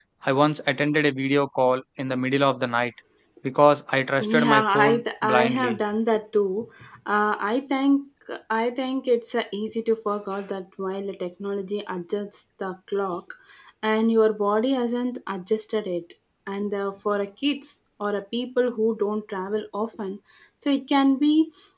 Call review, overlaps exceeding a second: present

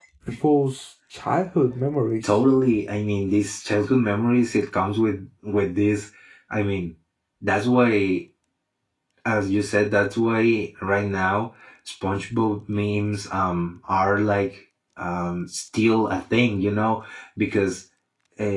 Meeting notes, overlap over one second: none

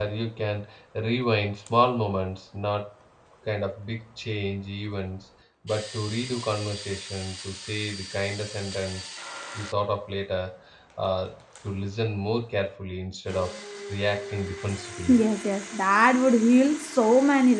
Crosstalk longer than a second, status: none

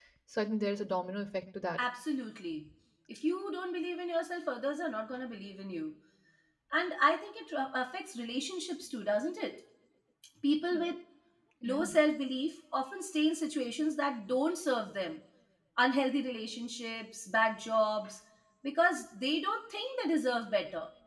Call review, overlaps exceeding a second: none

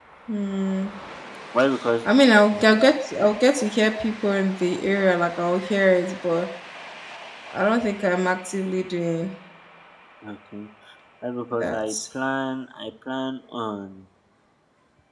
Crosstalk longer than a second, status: none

